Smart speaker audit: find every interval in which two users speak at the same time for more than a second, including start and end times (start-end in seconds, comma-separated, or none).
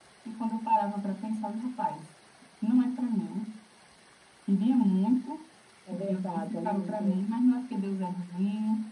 5.9-7.2